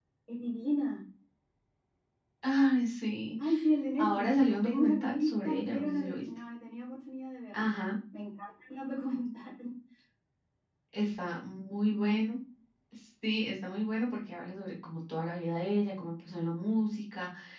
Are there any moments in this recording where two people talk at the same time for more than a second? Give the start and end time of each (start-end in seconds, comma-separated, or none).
4.0-6.2